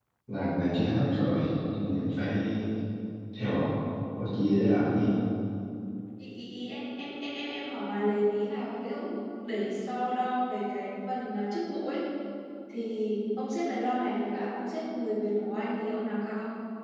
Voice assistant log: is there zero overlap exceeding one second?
Yes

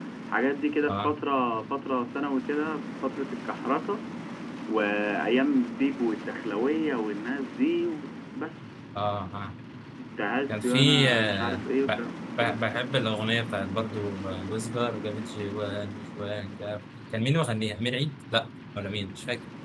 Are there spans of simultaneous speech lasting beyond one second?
Yes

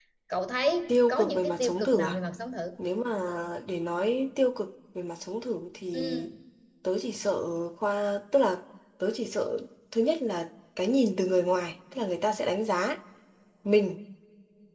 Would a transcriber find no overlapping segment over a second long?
No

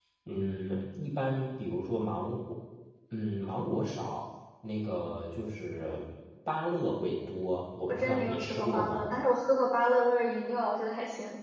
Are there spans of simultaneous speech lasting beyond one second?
Yes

